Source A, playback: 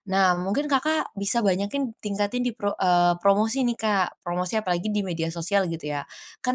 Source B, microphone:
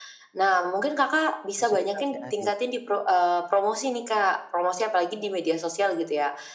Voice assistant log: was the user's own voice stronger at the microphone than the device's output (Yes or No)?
No